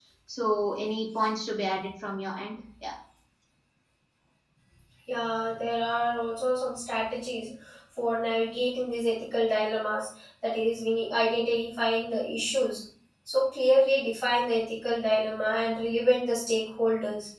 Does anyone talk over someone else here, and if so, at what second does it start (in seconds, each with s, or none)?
none